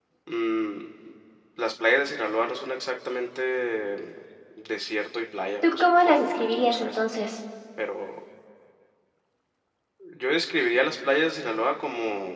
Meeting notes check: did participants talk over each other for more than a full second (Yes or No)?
Yes